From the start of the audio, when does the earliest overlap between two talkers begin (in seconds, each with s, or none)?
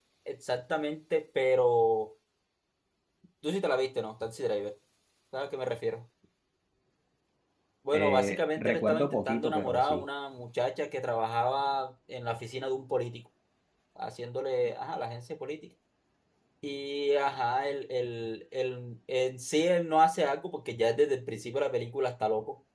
7.9 s